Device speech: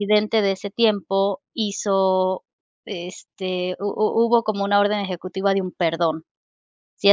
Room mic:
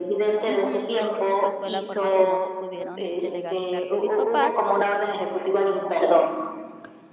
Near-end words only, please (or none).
Ujú. Así que, pues, fue la forma, como se pudieron, este, legalizarse mis papás,